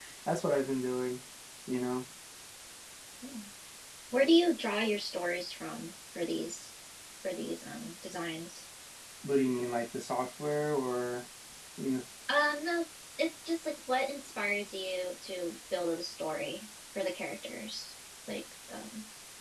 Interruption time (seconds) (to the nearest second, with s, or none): none